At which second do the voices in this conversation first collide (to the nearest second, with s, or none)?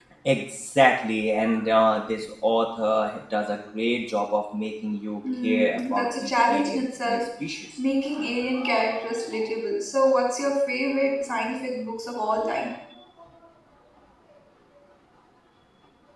5 s